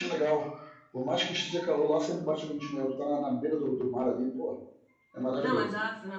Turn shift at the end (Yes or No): Yes